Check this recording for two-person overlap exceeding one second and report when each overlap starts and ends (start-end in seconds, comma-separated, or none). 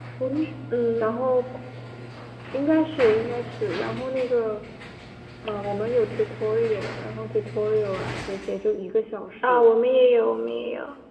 none